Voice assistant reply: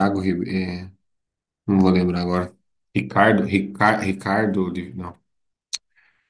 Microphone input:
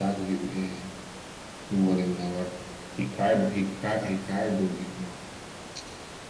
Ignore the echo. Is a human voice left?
No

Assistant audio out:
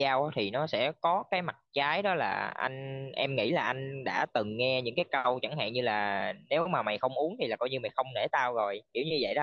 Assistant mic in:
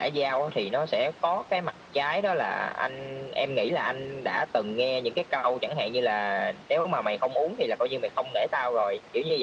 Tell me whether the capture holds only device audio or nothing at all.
Yes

